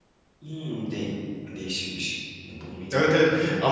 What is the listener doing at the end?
taking over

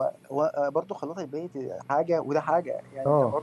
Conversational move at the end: listening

